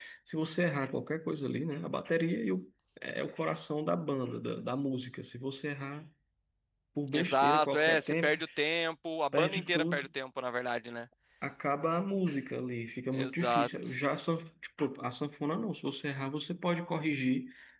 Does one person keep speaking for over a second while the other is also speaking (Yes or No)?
Yes